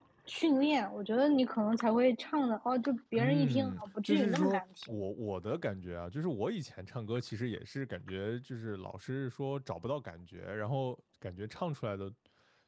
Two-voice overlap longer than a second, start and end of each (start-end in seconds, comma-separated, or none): 3.1-4.9